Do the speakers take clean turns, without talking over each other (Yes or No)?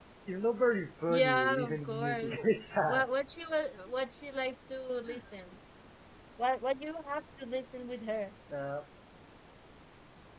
No